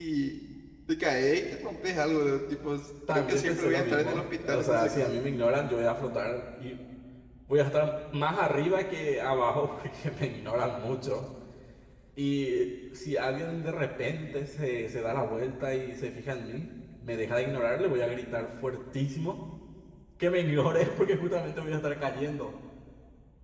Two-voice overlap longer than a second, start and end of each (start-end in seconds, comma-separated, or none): 3.1-5.2